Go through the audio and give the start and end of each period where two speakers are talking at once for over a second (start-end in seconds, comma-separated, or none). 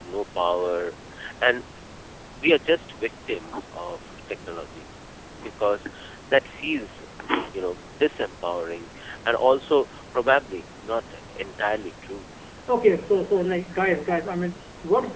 none